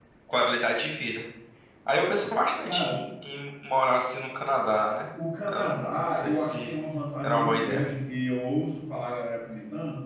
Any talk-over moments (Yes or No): Yes